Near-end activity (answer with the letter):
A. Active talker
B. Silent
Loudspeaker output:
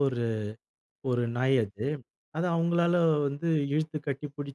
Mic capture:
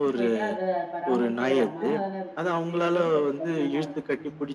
A